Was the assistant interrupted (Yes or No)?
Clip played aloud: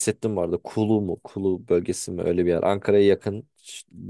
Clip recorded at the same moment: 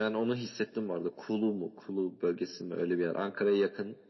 No